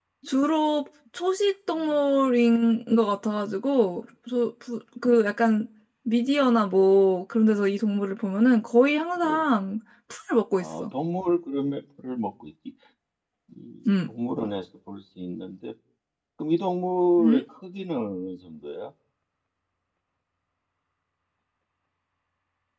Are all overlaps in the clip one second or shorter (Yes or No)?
Yes